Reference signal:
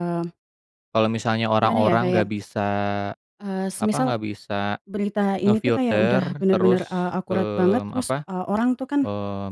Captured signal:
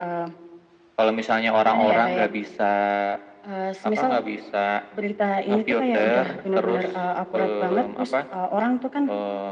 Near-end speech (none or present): none